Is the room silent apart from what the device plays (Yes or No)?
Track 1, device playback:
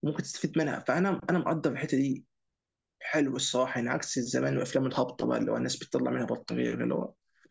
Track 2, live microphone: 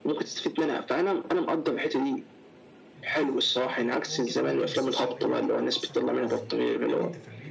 No